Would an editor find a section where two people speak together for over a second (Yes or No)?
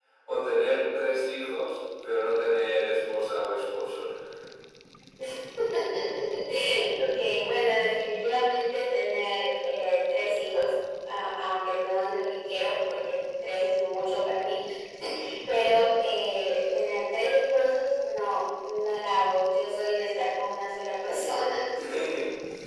No